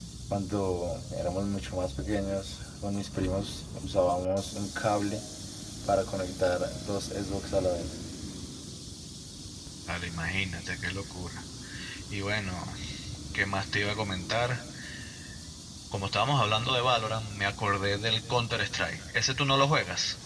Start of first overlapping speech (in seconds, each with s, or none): none